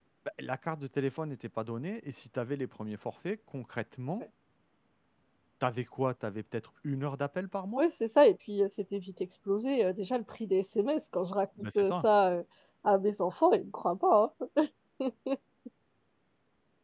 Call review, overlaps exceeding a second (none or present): none